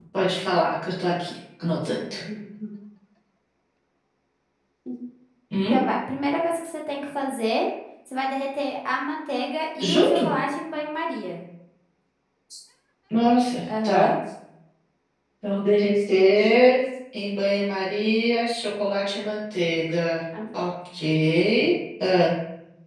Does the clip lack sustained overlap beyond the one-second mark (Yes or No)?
Yes